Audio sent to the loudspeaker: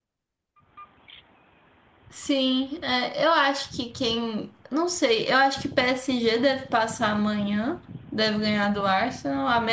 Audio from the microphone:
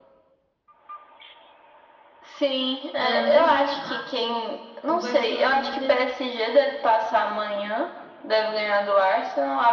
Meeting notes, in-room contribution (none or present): present